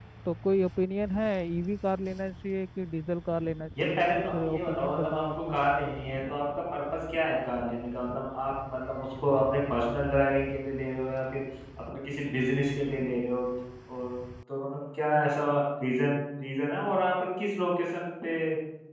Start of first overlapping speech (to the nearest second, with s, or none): 4 s